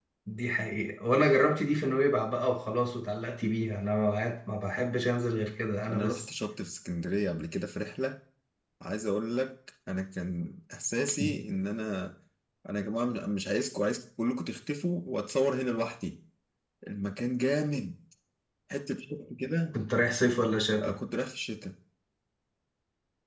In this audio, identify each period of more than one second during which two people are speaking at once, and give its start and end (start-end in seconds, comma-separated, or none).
none